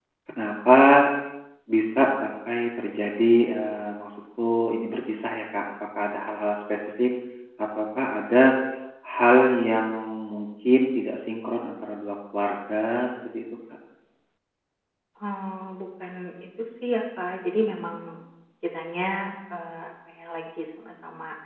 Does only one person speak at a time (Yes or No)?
Yes